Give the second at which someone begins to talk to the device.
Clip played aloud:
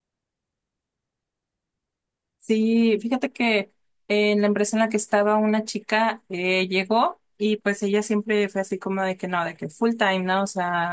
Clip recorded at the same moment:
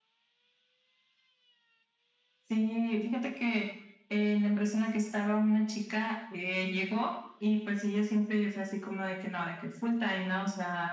none

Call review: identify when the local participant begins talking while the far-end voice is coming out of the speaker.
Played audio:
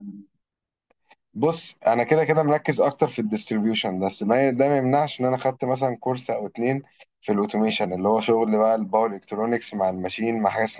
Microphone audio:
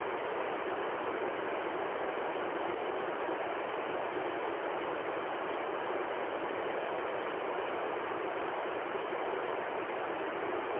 none

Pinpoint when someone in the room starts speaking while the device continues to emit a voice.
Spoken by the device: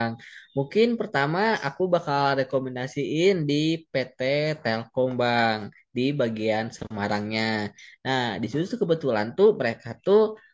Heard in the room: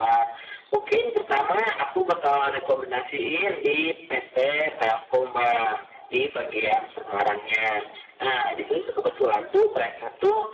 none

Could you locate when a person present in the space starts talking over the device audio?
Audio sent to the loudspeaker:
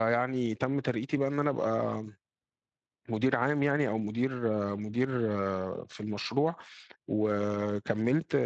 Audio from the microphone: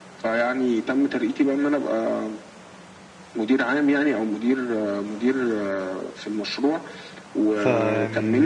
7 s

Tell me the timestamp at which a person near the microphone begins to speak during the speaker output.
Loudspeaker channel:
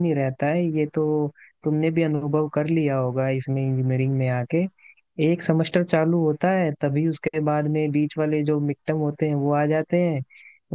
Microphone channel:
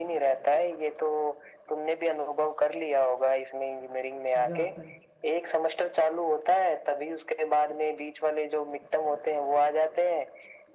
4 s

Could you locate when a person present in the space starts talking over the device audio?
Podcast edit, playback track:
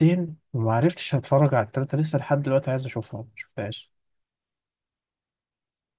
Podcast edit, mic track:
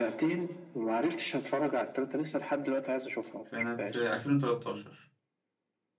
3 s

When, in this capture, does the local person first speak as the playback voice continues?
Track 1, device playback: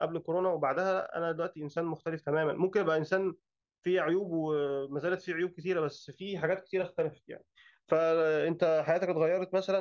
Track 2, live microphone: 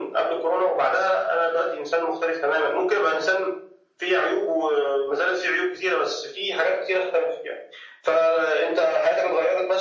none

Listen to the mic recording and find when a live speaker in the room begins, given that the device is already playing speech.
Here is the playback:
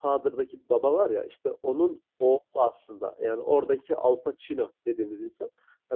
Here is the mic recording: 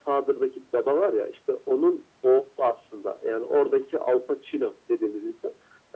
none

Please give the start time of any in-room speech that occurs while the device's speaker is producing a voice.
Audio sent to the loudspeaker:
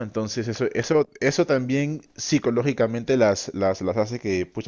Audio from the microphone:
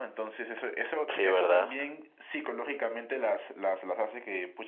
1 s

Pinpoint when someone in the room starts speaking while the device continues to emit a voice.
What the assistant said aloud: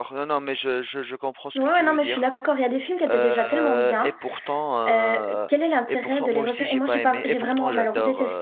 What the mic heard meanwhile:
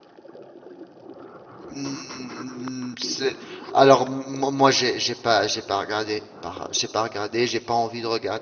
2 s

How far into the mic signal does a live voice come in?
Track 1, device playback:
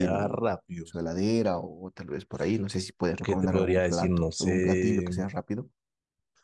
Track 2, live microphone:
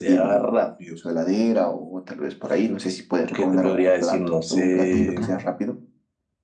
5 s

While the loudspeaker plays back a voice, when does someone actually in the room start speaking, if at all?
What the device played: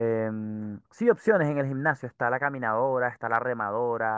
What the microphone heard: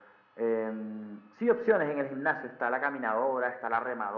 none

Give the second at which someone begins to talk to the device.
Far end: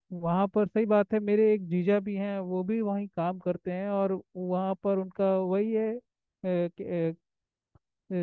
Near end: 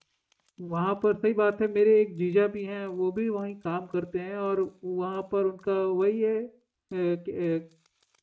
none

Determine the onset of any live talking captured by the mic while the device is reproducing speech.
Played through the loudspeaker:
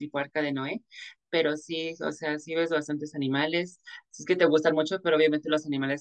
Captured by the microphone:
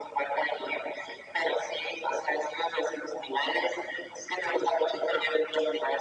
none

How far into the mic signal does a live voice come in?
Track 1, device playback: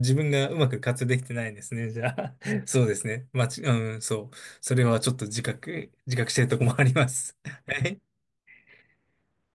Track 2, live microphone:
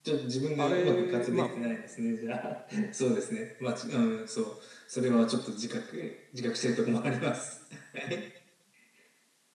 1 s

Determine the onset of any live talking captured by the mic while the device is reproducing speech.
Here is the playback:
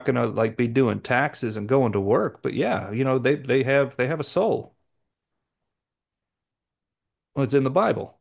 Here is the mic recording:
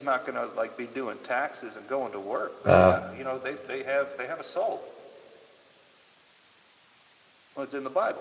3 s

